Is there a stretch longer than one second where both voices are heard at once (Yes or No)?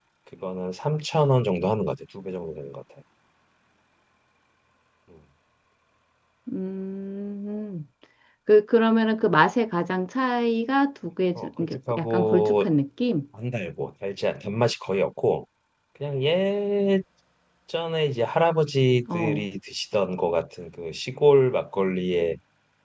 Yes